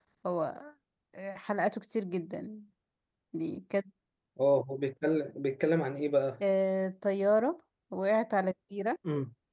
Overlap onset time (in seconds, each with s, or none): none